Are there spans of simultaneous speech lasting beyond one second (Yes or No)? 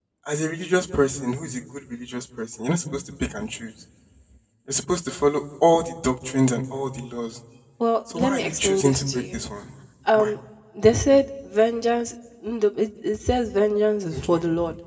Yes